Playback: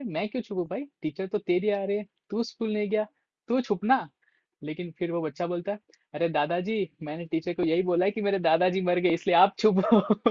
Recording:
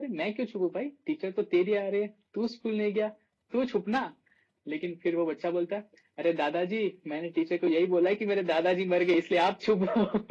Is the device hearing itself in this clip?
Yes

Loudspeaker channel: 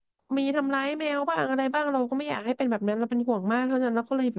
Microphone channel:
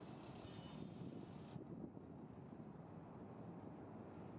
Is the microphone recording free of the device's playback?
Yes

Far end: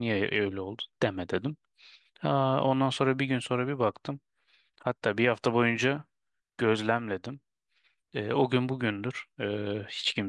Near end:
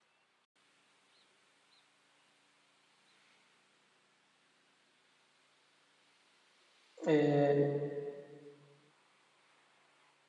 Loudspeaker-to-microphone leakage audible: No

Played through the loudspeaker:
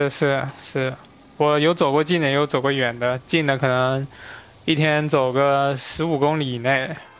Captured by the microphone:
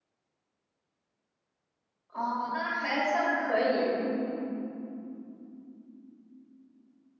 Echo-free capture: Yes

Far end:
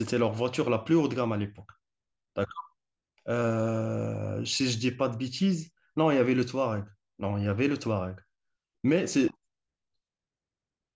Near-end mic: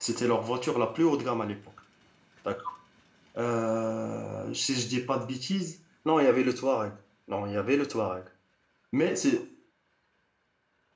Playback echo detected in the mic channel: Yes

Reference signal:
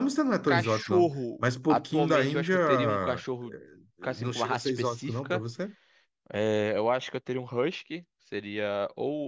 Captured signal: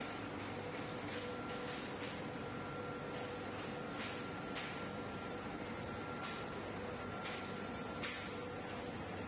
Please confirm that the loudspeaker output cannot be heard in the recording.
Yes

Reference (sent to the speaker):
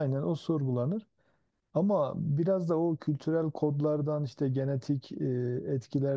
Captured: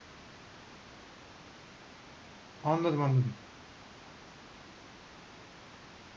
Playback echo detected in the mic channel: No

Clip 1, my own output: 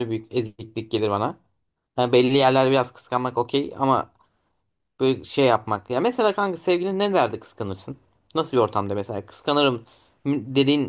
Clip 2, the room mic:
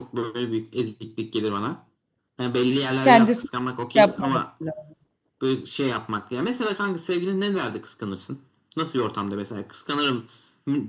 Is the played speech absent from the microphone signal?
No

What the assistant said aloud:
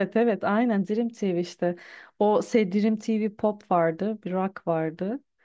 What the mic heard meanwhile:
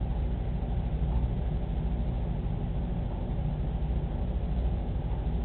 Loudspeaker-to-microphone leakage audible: No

